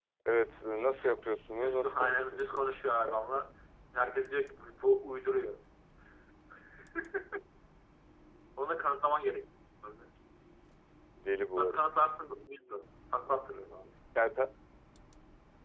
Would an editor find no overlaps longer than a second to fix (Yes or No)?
No